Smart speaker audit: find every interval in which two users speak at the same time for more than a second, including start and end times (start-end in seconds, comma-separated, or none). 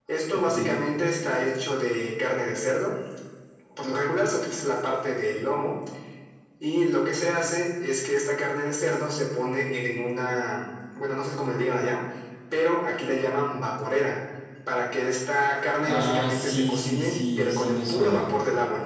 15.8-18.3